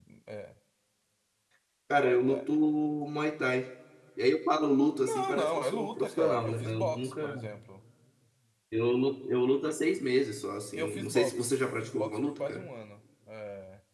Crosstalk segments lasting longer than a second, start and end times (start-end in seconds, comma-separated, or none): 5.0-7.3, 10.8-12.7